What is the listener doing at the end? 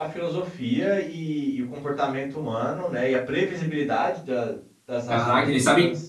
taking over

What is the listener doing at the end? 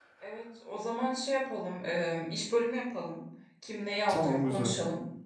listening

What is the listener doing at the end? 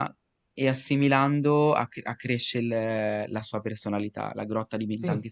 listening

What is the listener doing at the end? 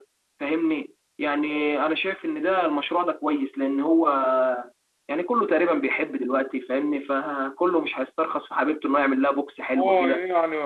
taking over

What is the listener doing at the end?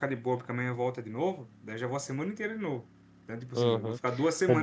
taking over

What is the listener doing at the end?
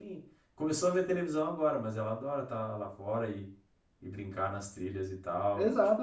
taking over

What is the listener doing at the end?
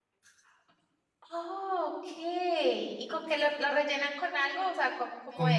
taking over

